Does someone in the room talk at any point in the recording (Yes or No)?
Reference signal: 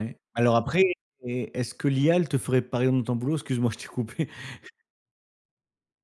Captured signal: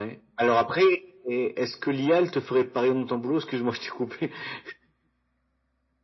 No